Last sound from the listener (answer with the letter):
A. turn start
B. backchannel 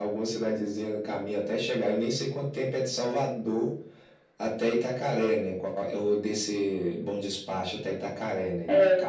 A